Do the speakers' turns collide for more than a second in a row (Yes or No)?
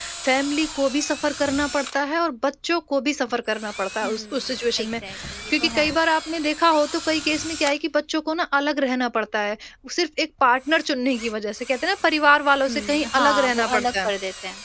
Yes